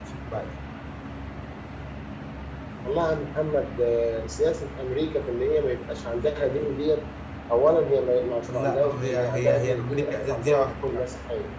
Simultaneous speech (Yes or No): Yes